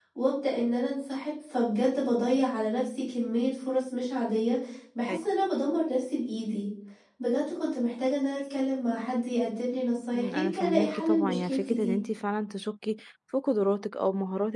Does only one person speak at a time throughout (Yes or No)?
No